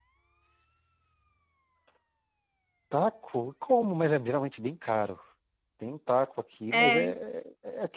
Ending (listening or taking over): listening